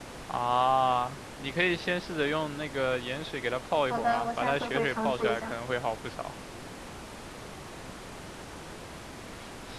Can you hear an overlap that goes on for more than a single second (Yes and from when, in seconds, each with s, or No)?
Yes, from 3.9 s